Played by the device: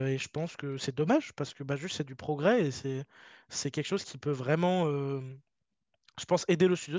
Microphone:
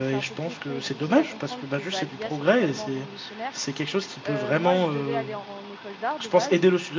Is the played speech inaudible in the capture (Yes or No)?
No